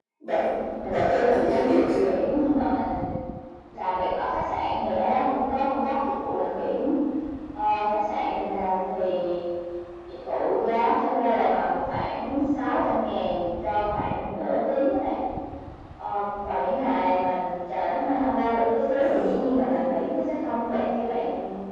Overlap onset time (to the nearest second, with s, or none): 1 s